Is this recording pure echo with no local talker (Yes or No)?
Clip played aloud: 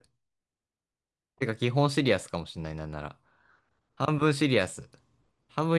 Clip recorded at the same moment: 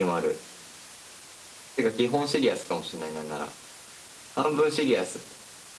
Yes